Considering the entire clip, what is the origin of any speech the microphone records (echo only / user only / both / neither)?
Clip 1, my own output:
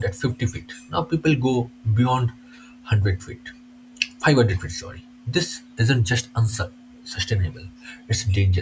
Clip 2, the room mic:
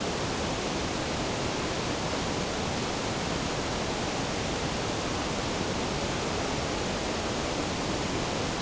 neither